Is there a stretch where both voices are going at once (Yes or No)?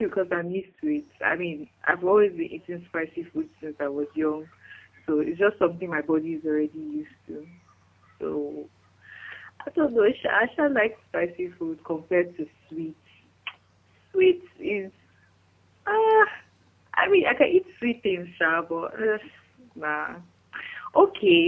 No